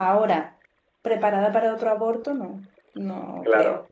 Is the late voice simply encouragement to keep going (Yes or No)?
No